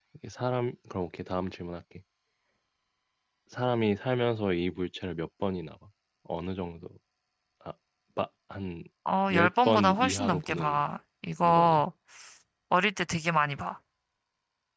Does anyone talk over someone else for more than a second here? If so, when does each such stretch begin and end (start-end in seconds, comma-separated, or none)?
9.3-10.8